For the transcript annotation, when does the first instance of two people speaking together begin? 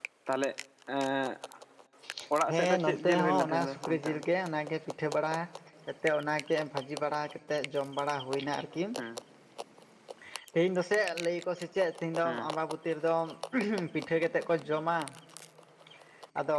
2.5 s

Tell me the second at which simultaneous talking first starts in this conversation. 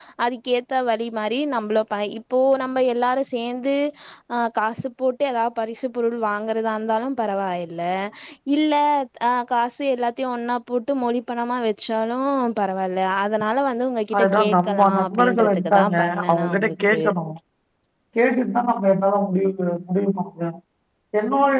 14.1 s

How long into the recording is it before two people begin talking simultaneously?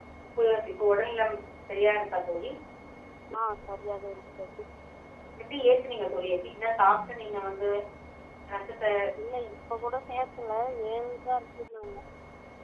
none

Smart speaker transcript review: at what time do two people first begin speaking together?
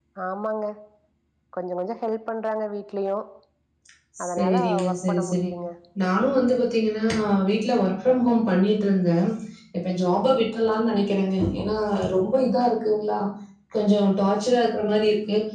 4.2 s

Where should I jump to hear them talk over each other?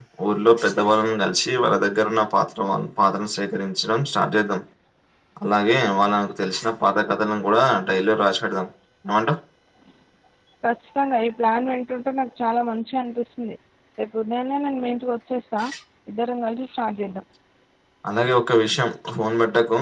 none

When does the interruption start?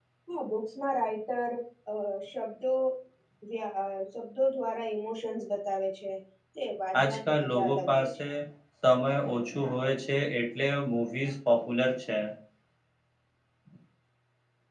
7.0 s

